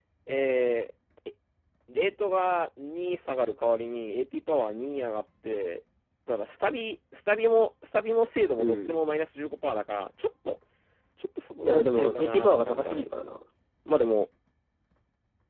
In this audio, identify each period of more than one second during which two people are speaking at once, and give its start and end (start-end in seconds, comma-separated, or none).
11.6-13.0